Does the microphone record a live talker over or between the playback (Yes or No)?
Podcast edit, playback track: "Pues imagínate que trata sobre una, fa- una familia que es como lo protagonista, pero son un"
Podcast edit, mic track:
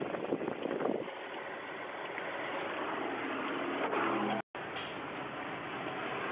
No